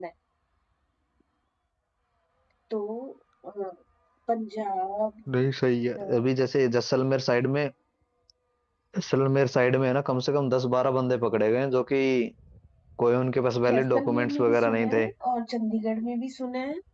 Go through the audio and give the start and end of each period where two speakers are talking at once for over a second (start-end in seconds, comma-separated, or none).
13.7-15.1